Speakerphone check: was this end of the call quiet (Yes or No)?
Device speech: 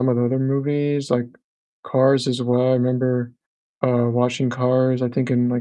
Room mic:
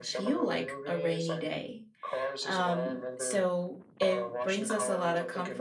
No